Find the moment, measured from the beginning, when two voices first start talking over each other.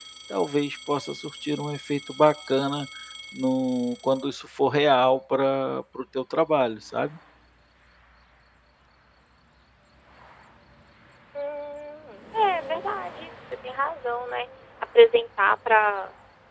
none

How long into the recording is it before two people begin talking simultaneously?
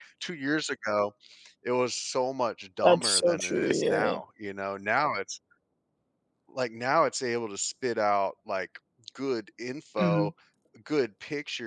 3 s

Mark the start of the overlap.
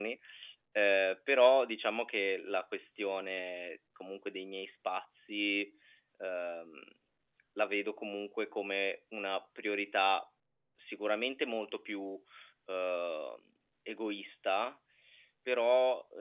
none

